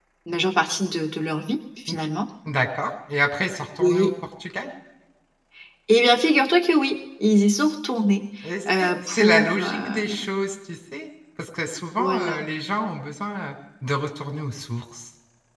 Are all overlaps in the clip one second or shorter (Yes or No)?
No